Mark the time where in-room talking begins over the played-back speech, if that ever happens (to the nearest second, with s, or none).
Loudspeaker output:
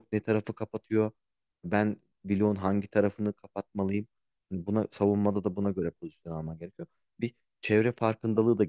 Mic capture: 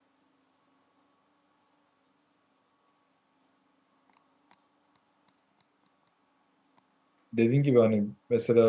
7 s